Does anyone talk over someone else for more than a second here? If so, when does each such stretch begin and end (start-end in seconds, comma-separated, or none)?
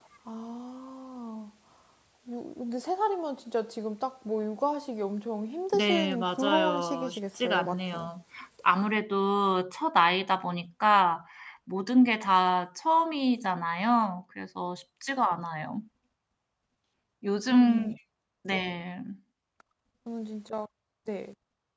5.7-8.1